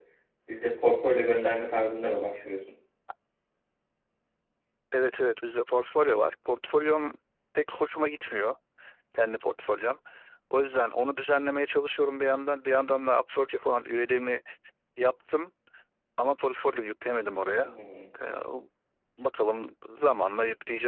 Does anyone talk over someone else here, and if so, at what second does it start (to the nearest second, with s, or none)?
none